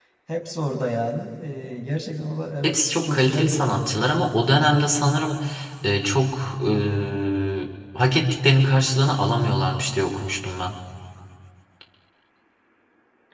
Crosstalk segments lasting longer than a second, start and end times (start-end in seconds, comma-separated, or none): 2.6-3.8